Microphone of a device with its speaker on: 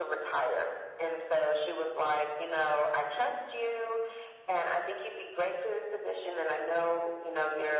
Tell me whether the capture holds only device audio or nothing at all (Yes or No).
Yes